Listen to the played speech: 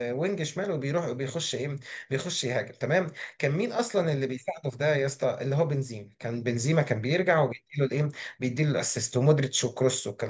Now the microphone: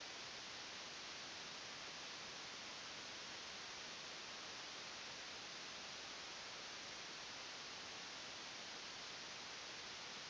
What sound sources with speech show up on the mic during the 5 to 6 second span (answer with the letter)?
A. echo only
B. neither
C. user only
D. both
B